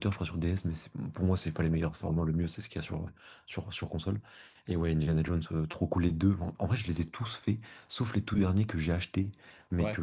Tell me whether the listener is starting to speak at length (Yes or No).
No